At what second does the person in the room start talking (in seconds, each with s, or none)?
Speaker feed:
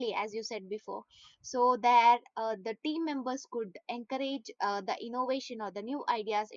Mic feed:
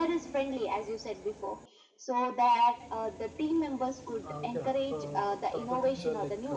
4.3 s